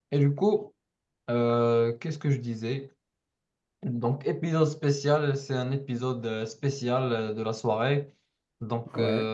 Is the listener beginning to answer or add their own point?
No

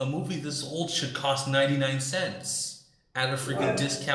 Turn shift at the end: No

